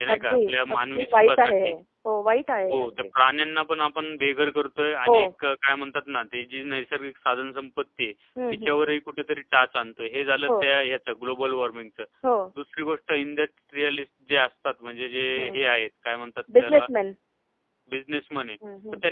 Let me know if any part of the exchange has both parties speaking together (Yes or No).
Yes